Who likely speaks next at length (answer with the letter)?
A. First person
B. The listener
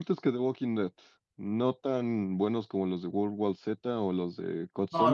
B